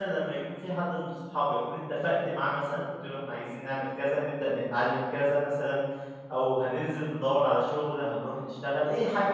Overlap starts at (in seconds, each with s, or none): none